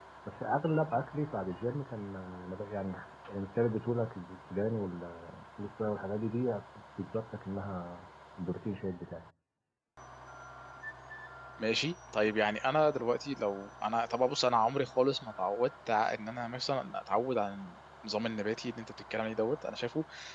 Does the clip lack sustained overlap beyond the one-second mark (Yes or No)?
Yes